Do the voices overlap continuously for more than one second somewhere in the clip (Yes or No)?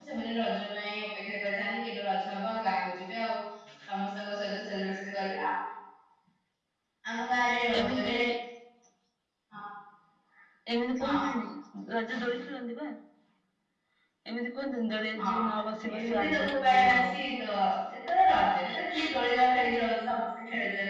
Yes